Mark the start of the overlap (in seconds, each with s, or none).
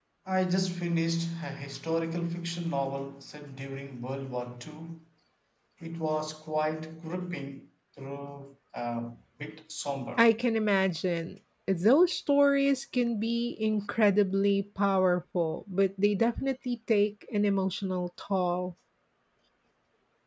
none